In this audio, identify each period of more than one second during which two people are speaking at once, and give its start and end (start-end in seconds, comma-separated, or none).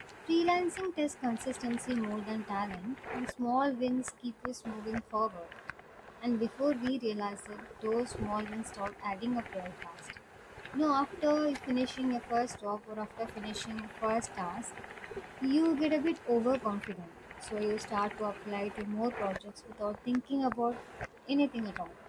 none